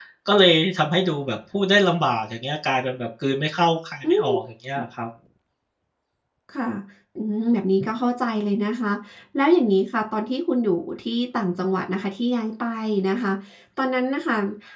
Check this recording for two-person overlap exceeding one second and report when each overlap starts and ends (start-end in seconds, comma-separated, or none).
none